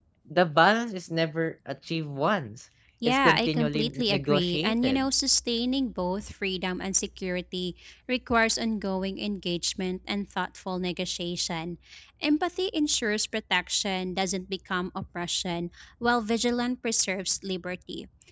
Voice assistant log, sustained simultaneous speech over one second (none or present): present